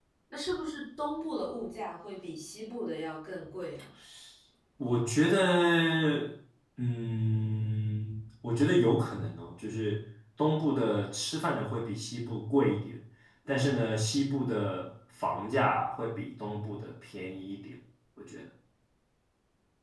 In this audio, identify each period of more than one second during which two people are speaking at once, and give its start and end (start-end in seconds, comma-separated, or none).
none